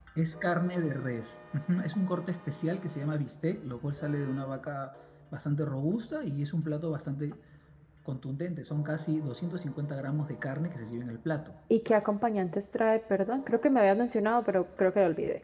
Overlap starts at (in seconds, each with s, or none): none